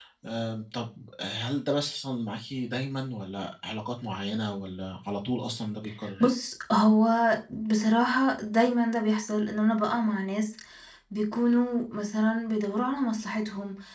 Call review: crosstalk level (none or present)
none